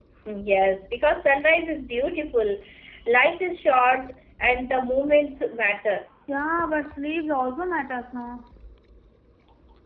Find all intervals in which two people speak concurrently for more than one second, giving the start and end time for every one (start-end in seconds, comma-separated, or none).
none